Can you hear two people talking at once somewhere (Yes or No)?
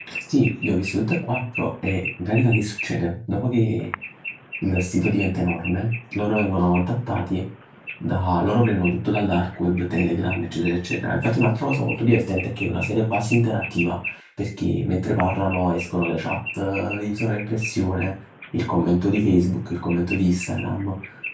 No